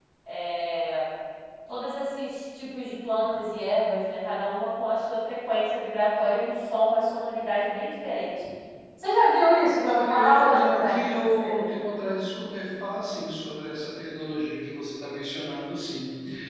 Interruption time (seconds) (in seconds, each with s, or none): 9.8 s